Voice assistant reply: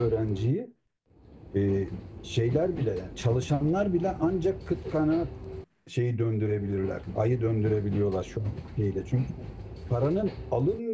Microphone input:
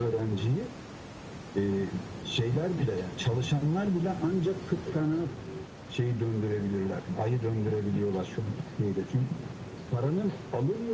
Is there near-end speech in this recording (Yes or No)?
No